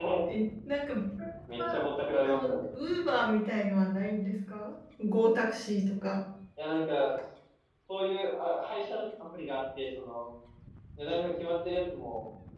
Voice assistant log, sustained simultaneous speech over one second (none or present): none